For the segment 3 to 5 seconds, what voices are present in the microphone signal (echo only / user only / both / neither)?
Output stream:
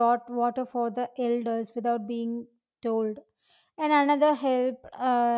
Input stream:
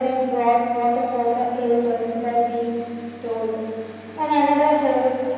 echo only